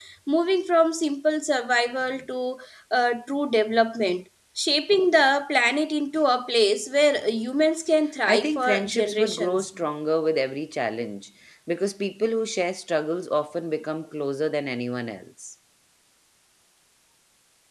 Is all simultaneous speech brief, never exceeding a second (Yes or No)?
No